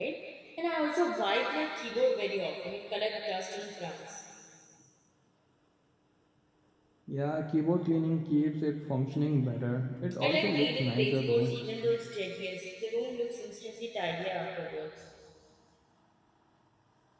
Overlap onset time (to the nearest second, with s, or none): 10 s